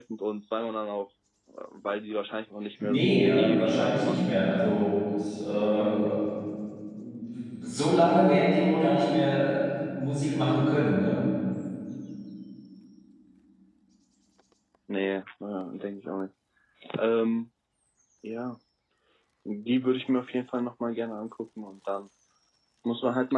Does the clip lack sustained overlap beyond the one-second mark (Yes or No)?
No